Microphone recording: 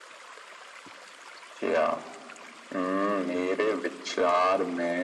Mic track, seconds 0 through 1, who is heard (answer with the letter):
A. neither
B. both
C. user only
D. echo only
A